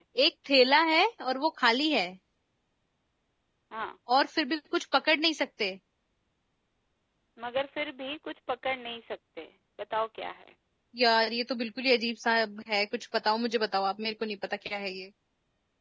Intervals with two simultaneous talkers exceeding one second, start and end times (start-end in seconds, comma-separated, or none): none